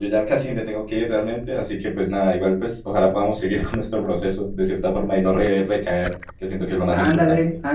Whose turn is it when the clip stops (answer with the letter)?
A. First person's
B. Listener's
B